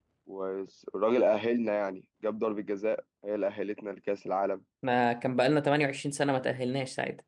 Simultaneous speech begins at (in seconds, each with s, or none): none